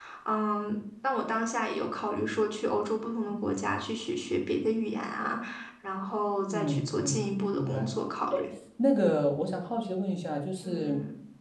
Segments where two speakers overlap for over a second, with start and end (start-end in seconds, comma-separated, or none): 6.5-7.9